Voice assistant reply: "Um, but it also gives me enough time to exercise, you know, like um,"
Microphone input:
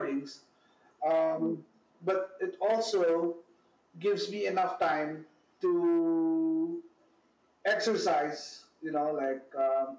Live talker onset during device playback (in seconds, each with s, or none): none